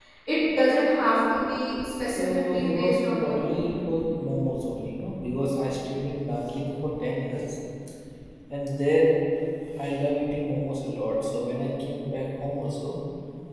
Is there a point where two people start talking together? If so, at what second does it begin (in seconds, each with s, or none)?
2.1 s